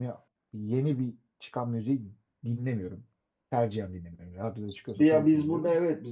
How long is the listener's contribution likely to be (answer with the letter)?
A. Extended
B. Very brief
A